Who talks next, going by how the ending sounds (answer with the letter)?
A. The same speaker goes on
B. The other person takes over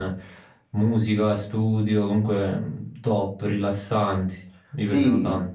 B